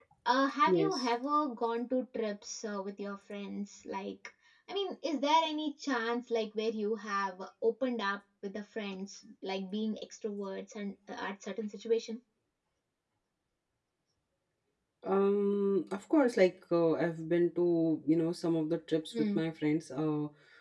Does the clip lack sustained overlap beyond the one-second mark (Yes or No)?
Yes